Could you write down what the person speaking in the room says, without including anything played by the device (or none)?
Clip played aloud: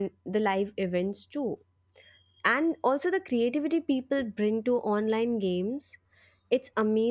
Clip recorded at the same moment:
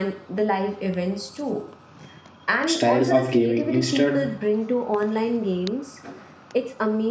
style of gaming. Instead,